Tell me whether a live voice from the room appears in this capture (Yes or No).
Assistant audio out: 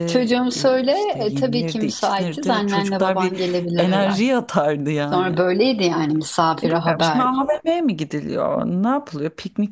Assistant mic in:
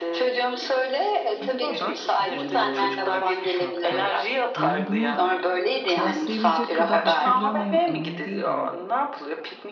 Yes